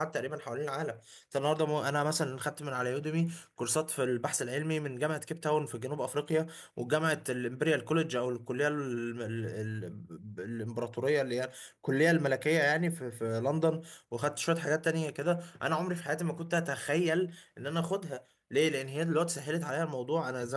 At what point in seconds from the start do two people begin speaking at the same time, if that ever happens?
none

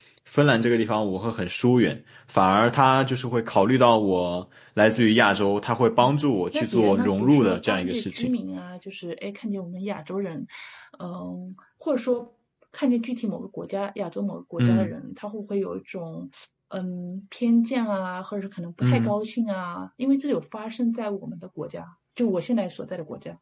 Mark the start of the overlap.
7 s

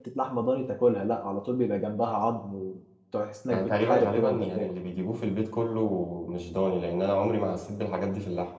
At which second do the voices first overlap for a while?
4 s

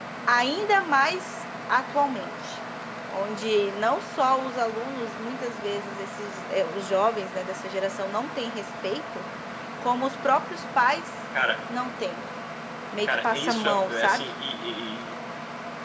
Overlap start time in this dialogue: 13 s

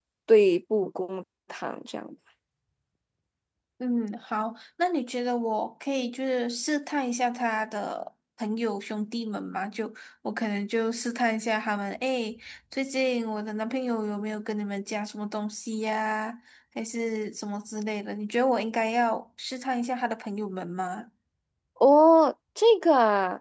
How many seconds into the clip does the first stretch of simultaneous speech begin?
none

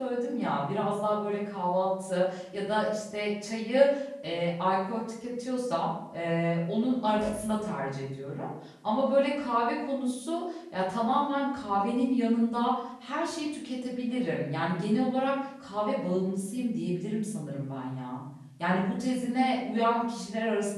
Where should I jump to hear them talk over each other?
none

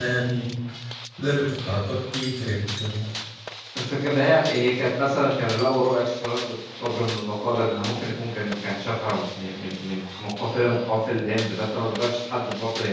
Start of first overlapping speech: none

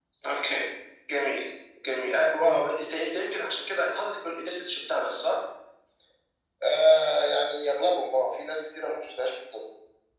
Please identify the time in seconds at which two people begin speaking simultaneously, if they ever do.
none

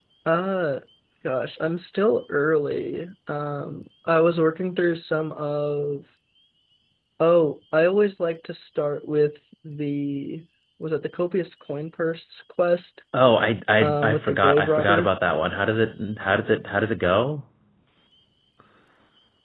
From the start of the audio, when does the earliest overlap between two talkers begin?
14 s

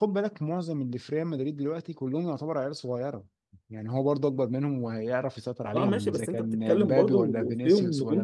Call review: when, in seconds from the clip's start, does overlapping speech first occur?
6 s

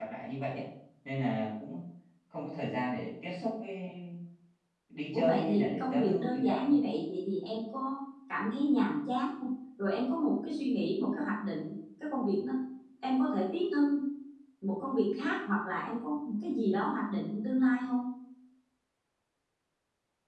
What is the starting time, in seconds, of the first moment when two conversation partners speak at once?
5 s

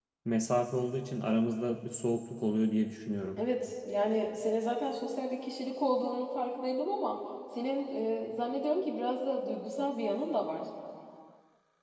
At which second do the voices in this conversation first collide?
none

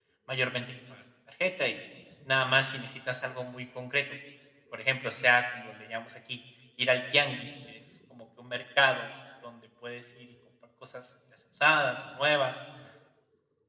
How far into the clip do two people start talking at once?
none

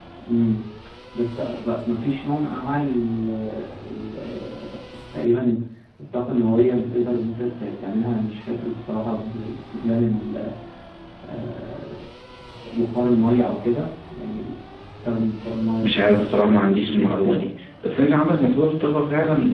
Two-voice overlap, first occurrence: 16 s

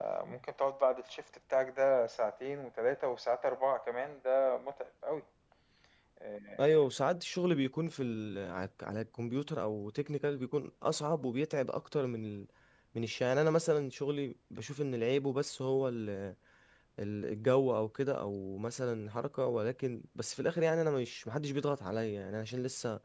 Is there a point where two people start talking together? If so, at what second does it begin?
none

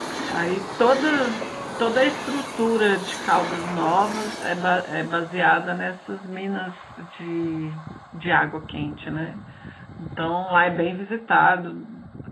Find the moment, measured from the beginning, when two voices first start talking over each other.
none

